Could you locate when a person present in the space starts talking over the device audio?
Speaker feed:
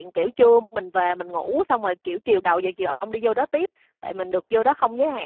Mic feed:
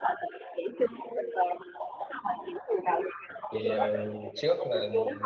3.5 s

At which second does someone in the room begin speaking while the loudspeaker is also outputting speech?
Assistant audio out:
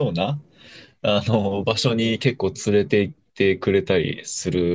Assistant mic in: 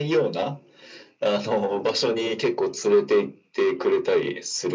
none

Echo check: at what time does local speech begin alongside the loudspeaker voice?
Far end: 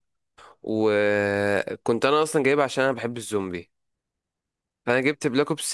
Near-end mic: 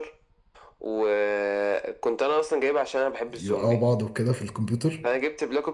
3.4 s

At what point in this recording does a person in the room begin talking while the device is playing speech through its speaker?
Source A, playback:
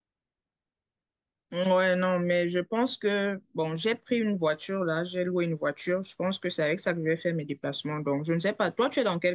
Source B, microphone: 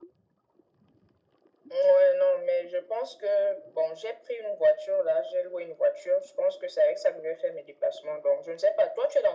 none

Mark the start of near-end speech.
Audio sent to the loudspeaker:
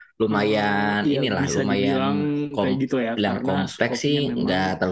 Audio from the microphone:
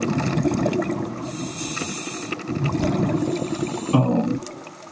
3.9 s

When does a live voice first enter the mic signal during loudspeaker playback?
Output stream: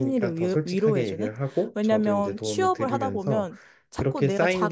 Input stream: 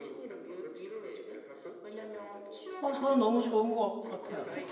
2.8 s

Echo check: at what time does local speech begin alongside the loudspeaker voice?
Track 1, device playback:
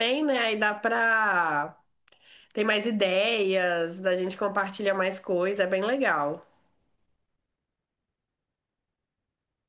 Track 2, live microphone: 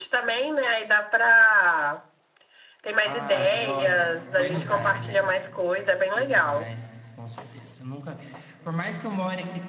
3.0 s

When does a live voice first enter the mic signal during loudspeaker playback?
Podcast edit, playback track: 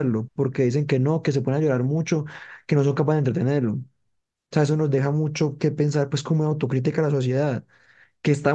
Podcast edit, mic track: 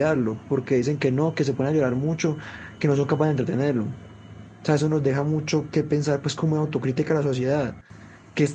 none

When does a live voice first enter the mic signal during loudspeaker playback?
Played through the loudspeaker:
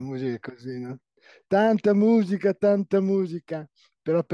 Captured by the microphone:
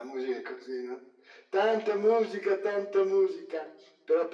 none

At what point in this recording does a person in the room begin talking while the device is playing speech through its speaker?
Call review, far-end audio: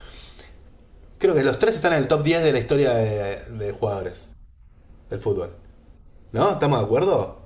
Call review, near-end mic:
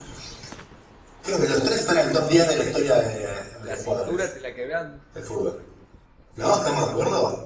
3.6 s

